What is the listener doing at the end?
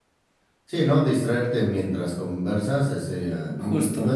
listening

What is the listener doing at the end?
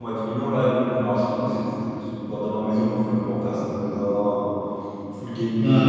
listening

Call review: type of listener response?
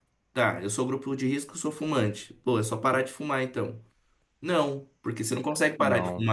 listening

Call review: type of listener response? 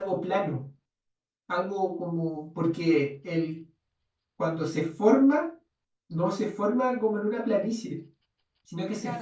taking over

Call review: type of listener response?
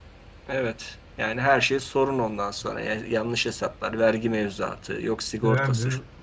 taking over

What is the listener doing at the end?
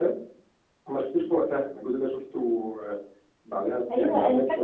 taking over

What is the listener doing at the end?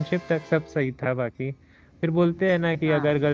listening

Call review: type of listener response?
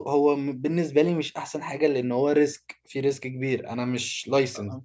taking over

